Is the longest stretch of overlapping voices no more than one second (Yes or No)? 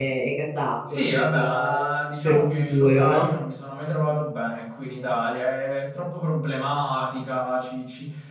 No